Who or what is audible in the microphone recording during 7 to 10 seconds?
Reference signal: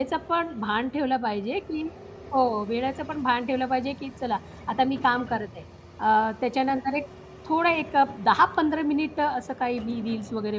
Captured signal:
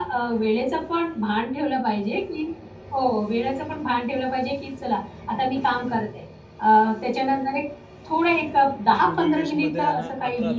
both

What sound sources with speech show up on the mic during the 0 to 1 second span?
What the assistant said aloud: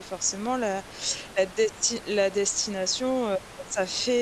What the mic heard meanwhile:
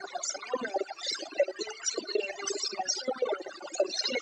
echo only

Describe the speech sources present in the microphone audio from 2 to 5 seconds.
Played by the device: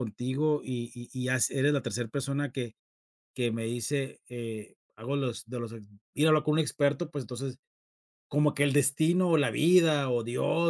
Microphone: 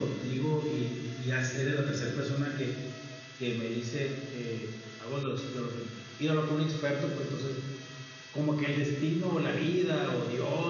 echo only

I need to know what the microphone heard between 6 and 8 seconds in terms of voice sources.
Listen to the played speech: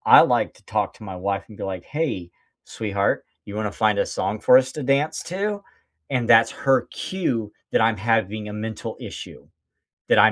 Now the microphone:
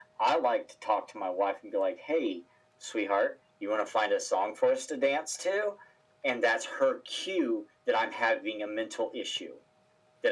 echo only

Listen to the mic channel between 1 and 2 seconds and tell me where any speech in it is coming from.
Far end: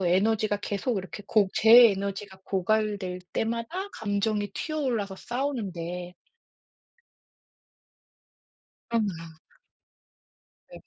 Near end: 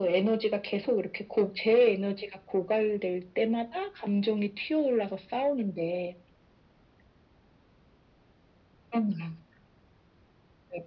echo only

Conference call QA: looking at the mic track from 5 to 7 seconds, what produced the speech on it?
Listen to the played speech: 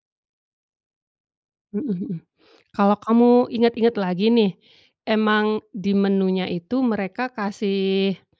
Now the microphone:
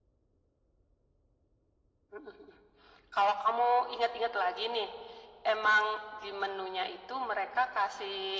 echo only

